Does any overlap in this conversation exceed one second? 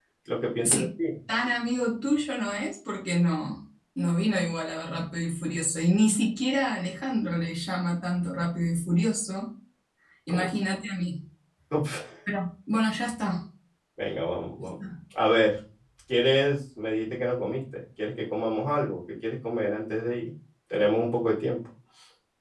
No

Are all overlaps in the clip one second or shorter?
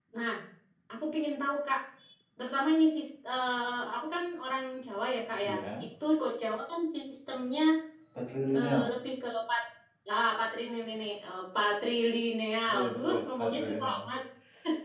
No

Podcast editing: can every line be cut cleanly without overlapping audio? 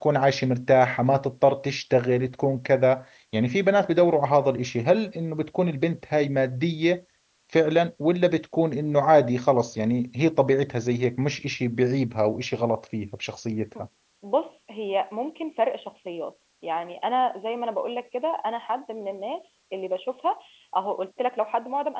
Yes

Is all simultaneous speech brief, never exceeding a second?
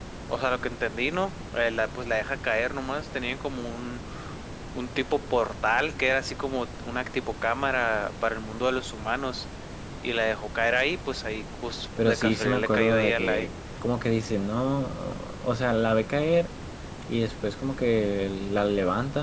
No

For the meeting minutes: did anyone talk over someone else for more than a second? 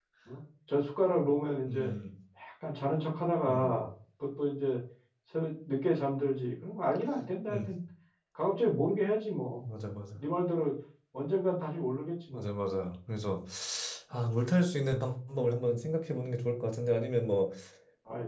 No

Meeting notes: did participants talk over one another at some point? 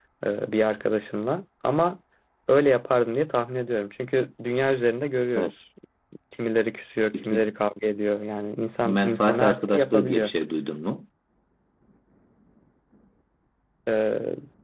Yes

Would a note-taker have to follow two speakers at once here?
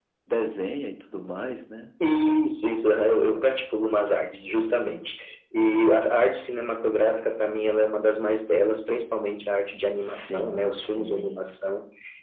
Yes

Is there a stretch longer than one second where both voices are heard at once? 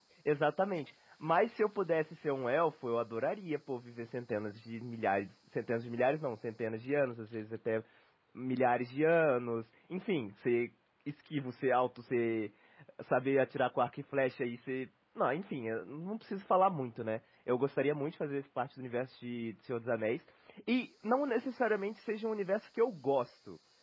No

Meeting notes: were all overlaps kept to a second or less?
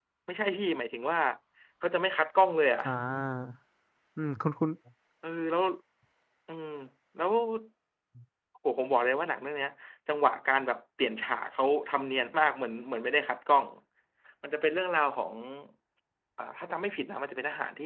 Yes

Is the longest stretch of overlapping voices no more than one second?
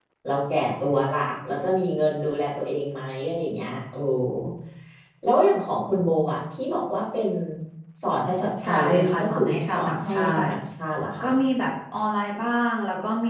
No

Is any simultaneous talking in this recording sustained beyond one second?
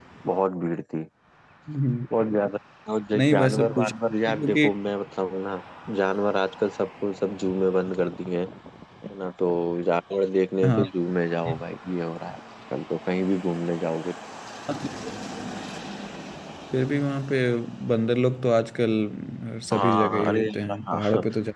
Yes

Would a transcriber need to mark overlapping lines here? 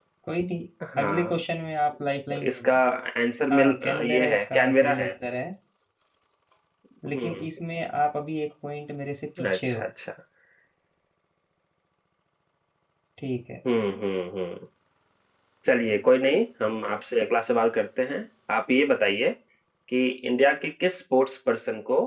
Yes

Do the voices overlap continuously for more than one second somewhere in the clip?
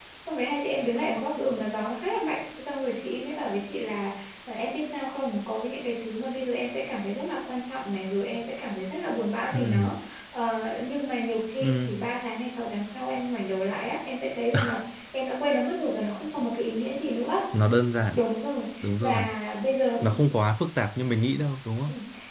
No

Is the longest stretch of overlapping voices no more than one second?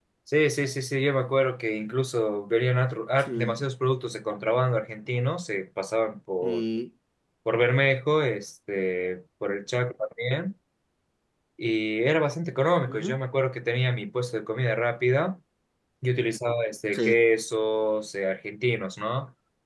Yes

